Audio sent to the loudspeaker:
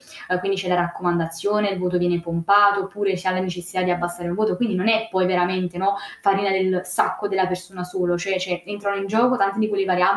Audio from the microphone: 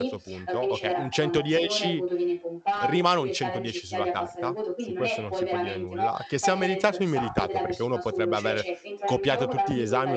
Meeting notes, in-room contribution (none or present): present